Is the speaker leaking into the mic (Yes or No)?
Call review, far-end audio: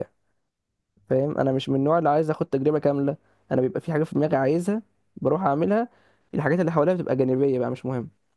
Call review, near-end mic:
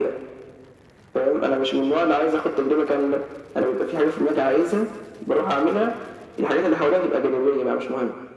Yes